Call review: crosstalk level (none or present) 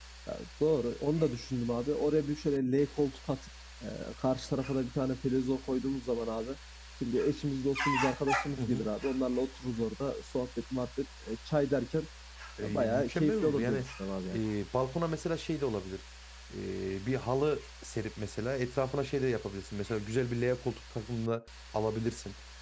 present